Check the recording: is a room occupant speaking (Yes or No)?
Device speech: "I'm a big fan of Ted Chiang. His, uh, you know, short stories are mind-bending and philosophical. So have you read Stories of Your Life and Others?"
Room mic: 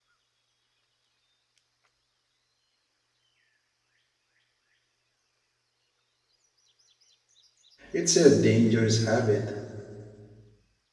Yes